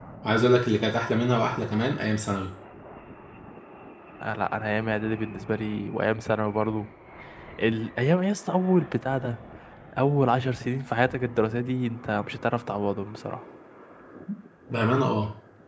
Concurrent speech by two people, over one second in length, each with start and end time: none

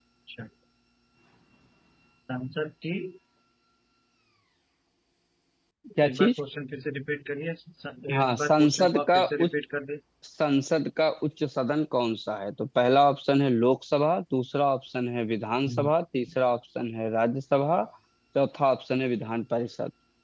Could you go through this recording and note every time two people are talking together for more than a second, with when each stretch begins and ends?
8.1-9.5

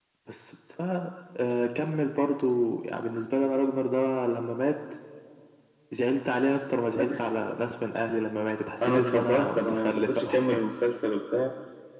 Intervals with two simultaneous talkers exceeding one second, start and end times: 8.8-10.7

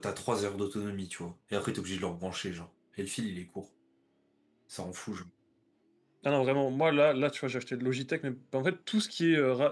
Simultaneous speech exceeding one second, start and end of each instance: none

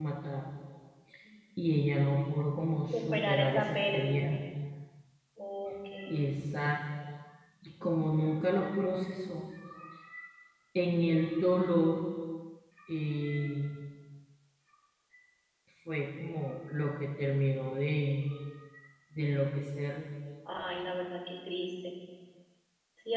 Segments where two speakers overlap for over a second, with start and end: 2.9-4.4

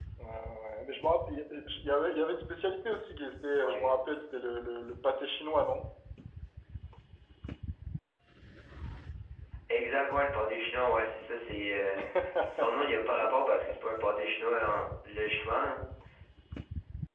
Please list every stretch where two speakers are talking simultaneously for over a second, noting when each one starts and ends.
none

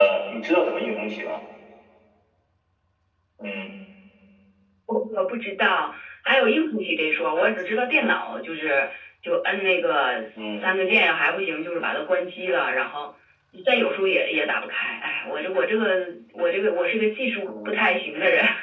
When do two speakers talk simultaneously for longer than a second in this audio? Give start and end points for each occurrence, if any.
none

